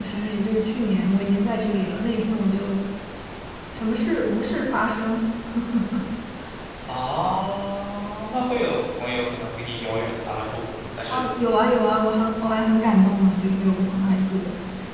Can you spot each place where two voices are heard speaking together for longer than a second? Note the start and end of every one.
none

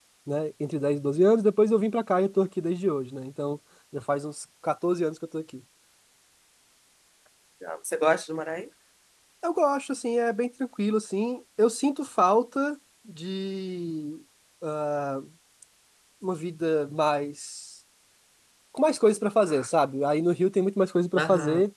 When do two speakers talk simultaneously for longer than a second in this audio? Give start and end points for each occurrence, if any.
none

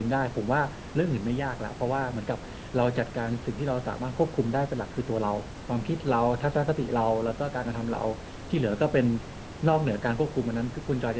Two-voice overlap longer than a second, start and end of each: none

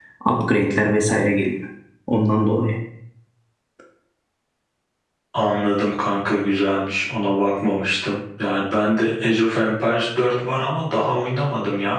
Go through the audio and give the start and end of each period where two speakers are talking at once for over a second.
none

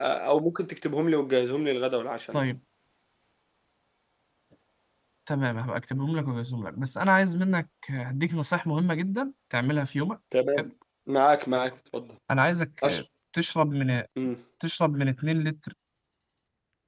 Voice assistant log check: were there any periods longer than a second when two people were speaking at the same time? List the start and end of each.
none

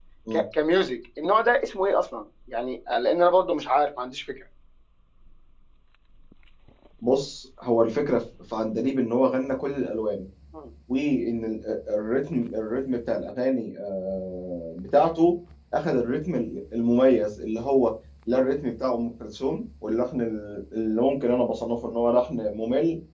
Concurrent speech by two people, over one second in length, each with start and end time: none

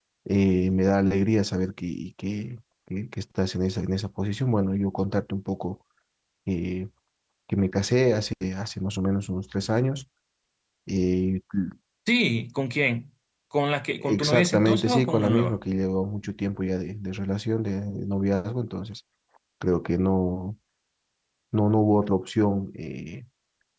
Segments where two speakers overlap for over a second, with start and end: 14.0-15.6

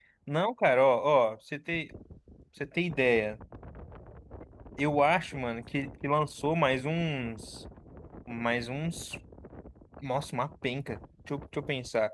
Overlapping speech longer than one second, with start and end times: none

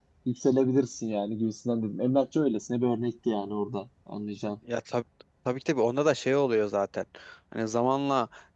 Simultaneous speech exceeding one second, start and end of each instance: none

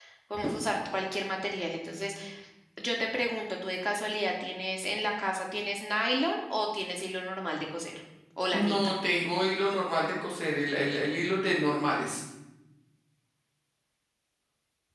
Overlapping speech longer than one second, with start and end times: none

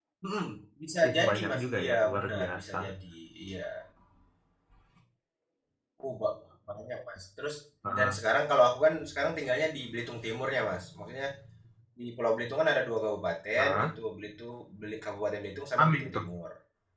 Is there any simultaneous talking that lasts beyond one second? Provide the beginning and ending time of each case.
1.0-2.8

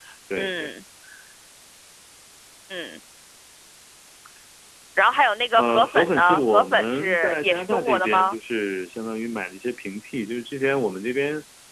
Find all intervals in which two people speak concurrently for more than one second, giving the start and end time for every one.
5.6-8.4

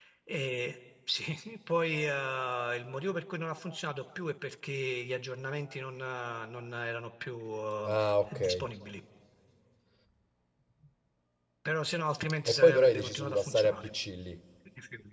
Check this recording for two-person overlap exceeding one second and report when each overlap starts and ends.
12.5-13.9

